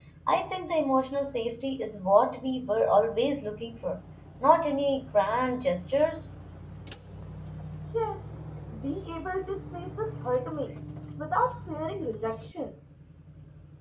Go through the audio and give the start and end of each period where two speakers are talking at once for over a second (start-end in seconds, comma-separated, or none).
none